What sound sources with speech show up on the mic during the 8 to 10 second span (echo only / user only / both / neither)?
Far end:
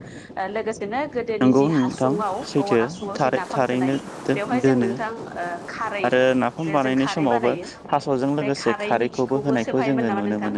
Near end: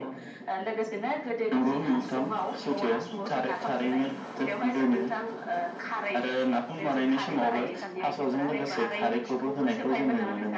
both